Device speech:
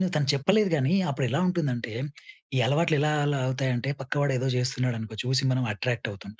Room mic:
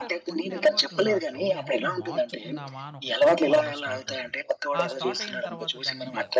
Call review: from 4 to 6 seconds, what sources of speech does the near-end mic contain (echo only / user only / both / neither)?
both